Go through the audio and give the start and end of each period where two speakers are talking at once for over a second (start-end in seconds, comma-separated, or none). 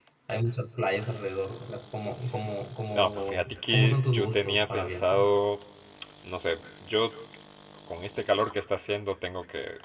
3.0-5.3